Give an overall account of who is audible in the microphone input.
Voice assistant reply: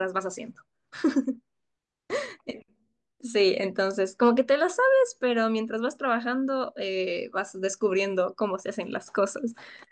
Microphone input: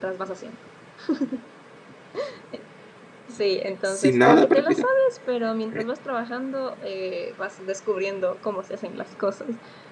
both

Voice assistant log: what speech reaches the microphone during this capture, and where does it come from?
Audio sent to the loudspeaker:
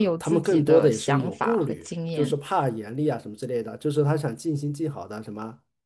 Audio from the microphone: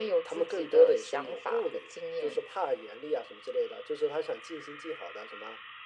echo only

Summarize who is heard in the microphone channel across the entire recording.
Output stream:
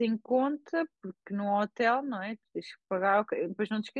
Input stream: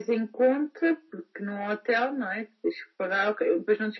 echo only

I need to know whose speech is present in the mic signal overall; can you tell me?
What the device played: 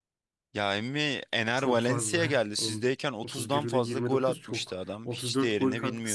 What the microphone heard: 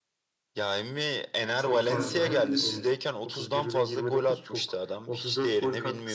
both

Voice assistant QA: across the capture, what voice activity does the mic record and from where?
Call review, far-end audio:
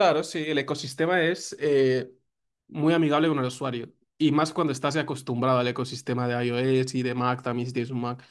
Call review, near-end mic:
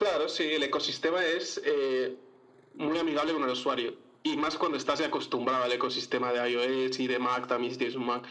echo only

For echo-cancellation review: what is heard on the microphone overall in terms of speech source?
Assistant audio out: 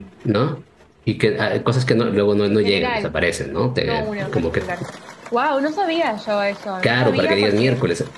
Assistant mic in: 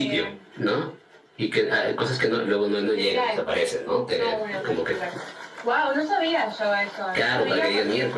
echo only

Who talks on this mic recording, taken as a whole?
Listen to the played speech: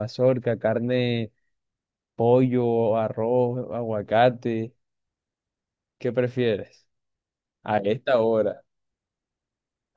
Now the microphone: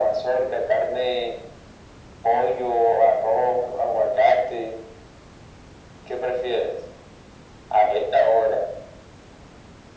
echo only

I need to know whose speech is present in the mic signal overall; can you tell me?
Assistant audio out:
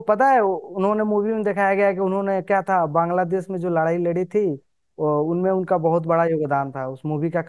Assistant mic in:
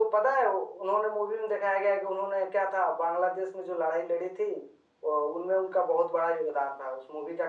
echo only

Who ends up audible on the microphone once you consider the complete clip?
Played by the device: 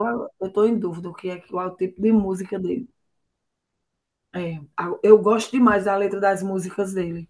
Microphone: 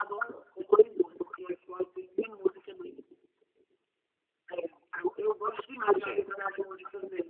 both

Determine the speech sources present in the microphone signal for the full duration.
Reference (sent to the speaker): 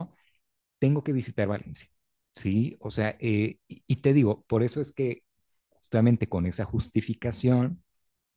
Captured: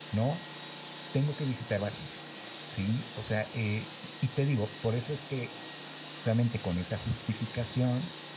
echo only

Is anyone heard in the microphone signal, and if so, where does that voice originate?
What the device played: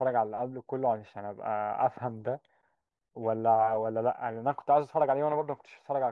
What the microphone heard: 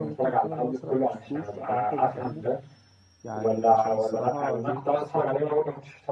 both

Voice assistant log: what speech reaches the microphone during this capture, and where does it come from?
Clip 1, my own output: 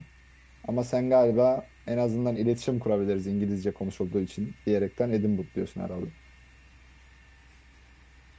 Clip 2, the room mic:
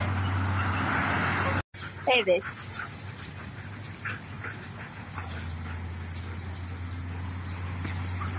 user only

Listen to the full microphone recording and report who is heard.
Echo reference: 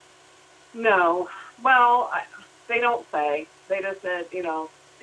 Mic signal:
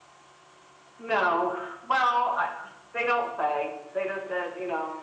echo only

